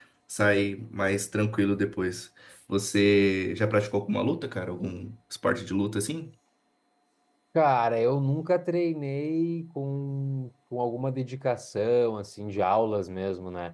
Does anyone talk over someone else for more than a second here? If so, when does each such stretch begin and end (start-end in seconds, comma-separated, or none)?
none